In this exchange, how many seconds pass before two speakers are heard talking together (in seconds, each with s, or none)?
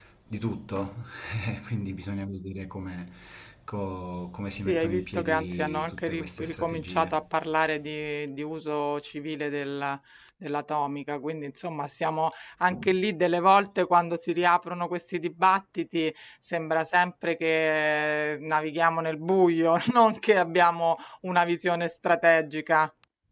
4.7 s